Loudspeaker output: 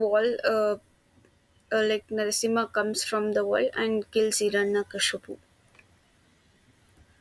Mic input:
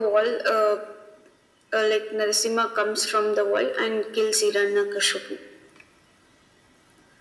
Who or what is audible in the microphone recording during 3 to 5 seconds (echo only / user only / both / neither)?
echo only